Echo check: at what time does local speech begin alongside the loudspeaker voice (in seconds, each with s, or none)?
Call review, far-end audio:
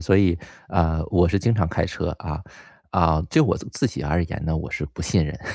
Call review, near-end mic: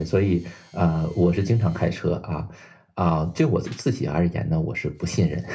none